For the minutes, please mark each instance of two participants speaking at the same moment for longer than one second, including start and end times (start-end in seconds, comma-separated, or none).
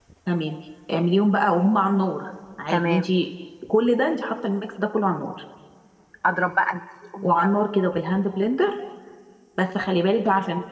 none